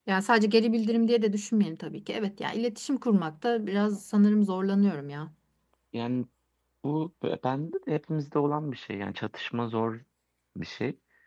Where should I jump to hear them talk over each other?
none

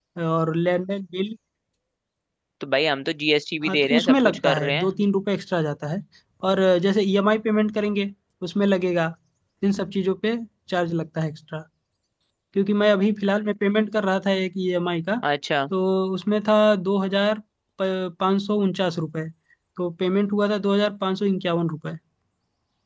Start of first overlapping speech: 3.6 s

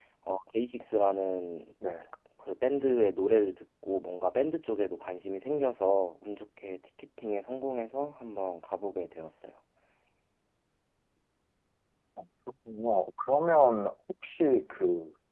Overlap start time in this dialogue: none

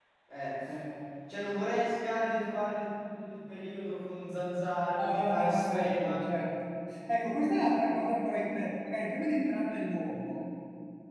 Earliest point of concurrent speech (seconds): 5.0 s

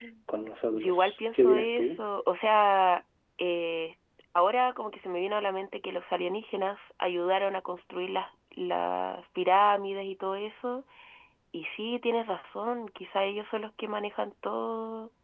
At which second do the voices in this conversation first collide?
0.7 s

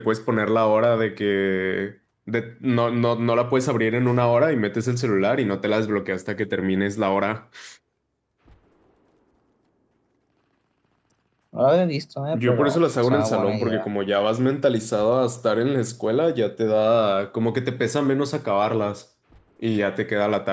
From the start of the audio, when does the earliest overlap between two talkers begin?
12.3 s

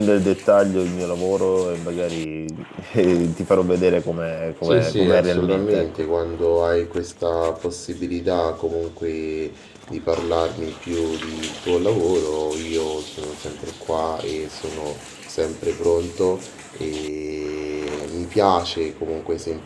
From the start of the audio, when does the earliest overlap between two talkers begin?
4.6 s

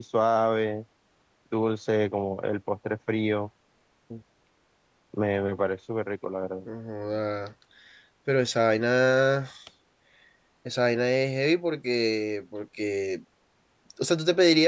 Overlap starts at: none

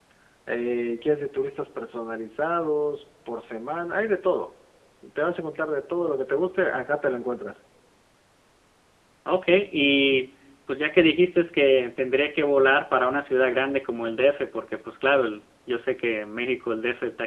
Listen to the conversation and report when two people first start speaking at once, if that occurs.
none

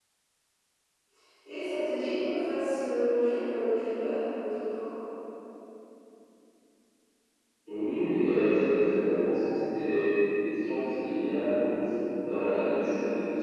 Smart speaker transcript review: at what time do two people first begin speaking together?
none

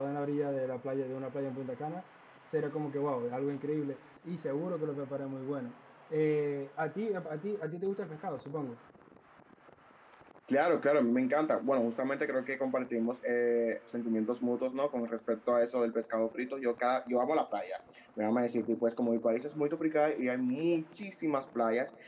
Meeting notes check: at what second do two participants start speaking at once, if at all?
none

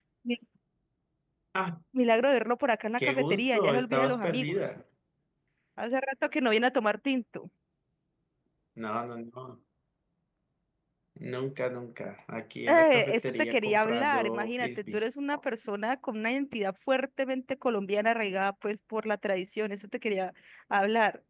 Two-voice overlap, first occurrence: 3.0 s

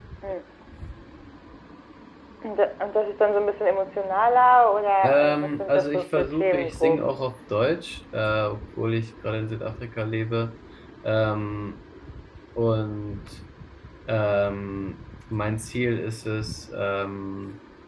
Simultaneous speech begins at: 5.0 s

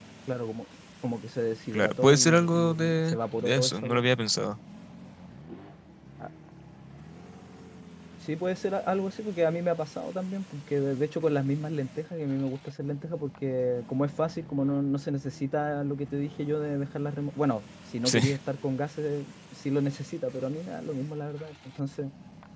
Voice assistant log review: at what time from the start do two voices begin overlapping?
1.7 s

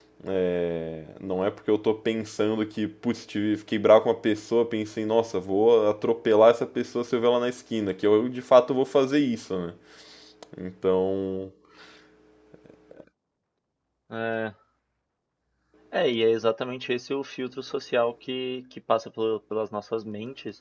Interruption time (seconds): none

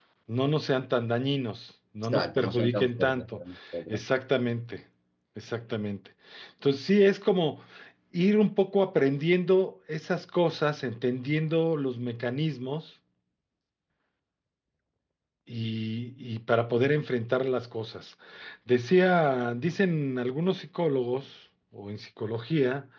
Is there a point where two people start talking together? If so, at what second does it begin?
2.0 s

